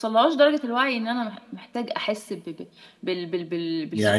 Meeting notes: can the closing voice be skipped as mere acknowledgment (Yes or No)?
No